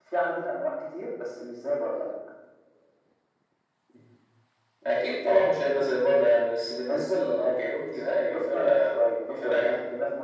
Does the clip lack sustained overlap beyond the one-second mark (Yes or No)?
No